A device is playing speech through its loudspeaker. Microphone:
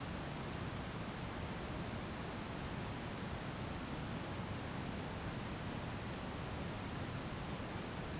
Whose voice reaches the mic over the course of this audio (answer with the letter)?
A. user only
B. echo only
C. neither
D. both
C